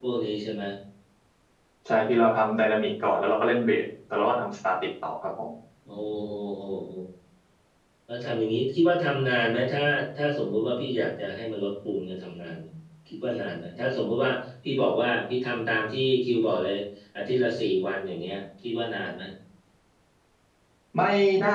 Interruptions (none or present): none